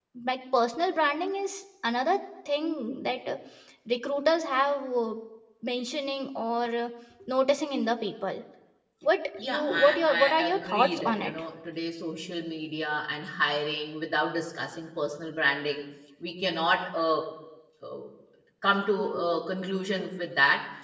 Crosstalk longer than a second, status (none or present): present